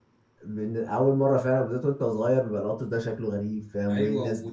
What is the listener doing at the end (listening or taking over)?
taking over